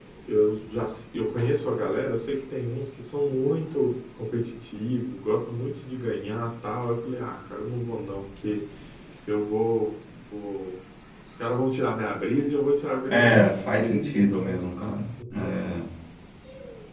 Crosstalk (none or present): present